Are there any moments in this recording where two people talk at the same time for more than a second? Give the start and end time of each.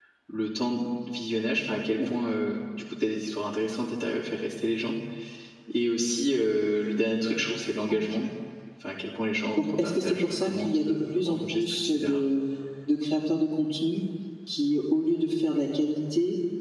9.6-12.2

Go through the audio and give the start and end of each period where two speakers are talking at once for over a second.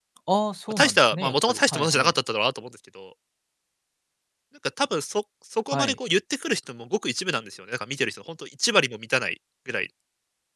0.7-2.1

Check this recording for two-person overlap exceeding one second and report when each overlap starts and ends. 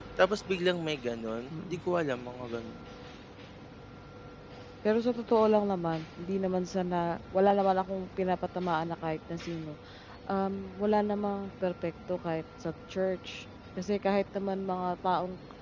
none

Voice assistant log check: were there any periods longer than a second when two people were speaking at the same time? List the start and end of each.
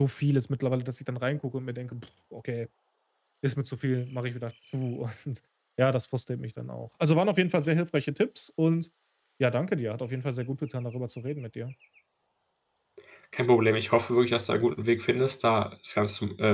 none

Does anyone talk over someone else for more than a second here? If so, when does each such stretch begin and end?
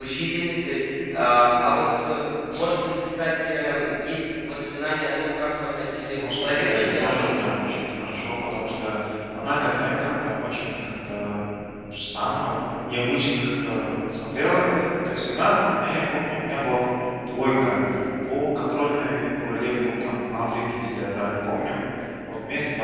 6.1-7.8

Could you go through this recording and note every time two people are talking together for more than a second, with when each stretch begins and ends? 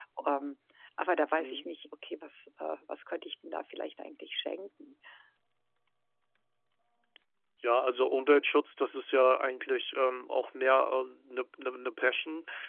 none

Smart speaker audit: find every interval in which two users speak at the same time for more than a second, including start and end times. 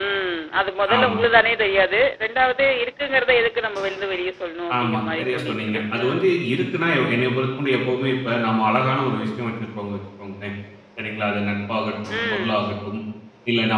4.8-6.2

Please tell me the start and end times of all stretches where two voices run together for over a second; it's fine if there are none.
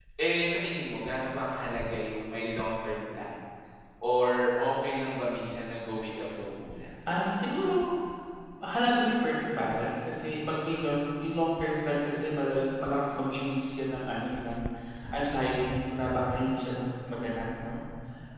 none

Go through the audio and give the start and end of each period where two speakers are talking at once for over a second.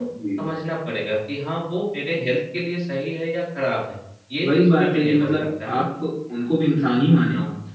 4.4-5.9

